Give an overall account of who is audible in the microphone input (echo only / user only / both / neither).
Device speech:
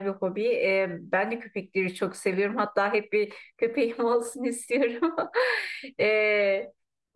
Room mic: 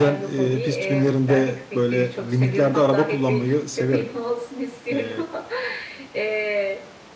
both